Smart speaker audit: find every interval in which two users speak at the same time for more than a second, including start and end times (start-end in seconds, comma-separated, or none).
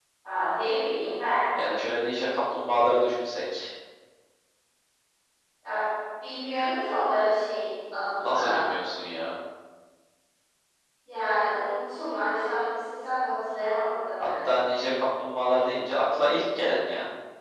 none